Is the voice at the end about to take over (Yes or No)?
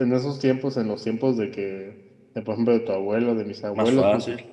No